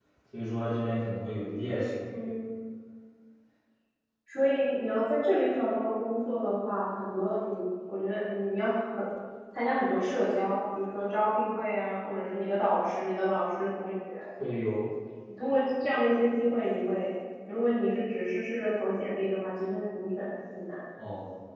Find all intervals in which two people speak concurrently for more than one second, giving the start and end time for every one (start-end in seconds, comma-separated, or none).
none